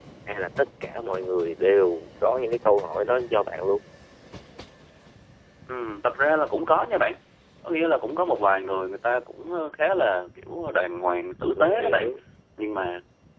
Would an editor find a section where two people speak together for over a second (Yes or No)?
No